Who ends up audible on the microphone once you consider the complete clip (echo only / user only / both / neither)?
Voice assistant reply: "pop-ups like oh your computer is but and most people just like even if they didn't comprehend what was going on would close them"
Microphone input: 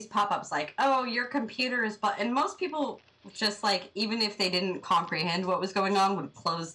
echo only